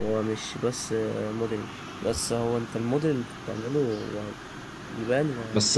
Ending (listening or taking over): taking over